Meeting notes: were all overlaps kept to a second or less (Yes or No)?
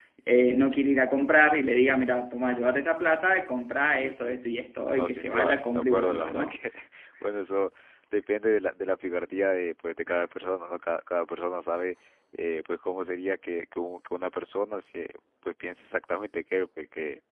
No